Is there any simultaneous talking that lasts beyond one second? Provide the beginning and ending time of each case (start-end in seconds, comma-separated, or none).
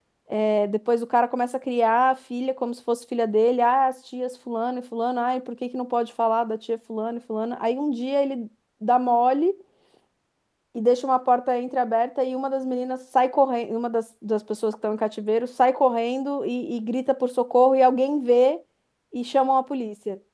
none